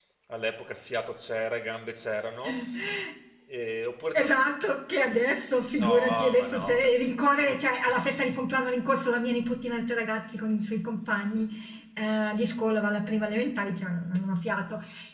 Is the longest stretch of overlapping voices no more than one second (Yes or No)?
No